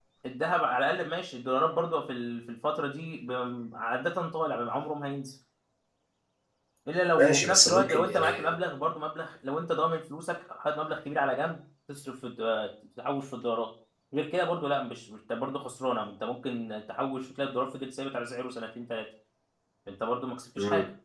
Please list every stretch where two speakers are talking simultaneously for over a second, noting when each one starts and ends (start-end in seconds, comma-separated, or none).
7.2-8.5